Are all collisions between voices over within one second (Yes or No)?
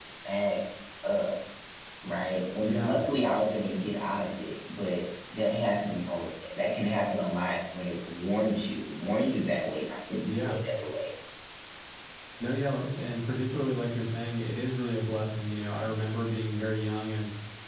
Yes